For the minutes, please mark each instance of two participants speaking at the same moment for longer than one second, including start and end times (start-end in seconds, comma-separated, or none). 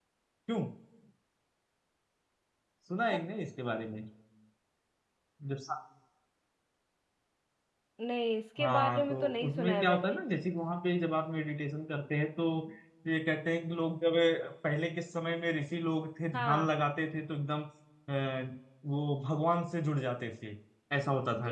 8.6-10.1